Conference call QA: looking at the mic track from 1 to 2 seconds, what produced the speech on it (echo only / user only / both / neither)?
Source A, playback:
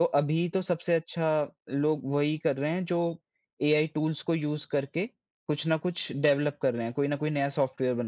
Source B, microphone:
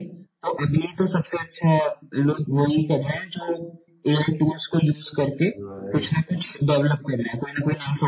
echo only